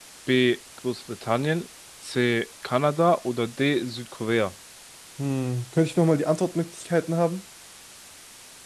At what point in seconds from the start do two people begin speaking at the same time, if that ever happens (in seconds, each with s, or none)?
none